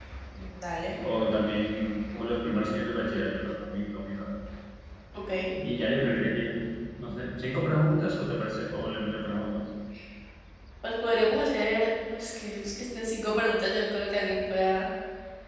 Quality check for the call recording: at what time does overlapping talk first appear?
none

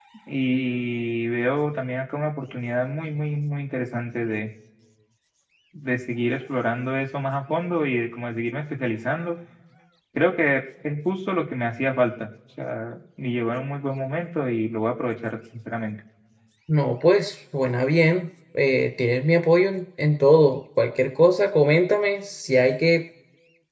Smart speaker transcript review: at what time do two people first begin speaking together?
none

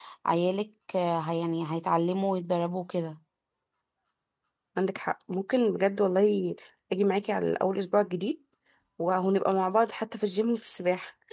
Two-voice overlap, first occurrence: none

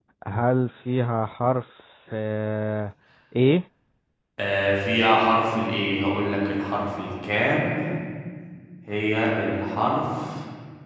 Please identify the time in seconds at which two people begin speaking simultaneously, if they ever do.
none

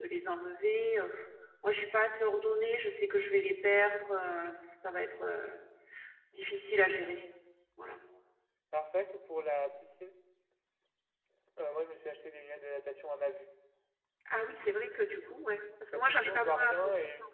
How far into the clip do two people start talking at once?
15.9 s

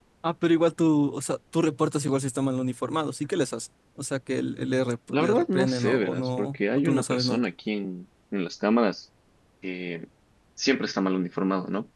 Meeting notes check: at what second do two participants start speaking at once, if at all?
5.1 s

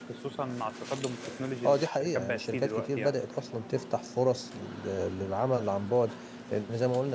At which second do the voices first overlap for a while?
1.6 s

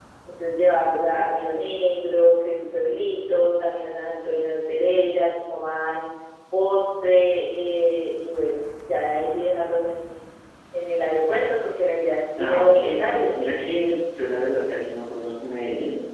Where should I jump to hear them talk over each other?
12.4 s

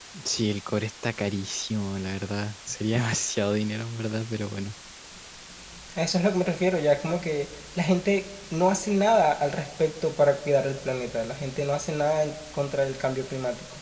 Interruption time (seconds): none

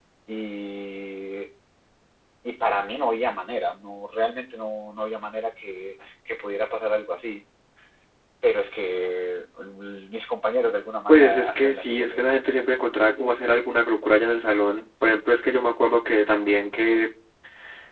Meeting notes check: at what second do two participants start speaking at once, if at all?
11.1 s

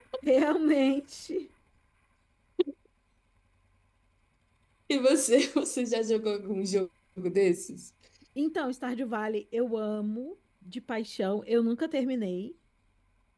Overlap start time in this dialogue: none

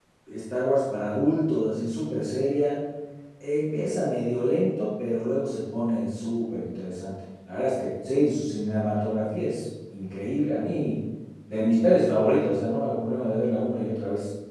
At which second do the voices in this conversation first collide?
none

